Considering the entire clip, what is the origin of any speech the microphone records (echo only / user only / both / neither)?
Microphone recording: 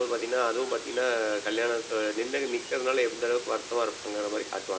echo only